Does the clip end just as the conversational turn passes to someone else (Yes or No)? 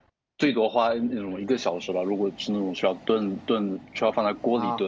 No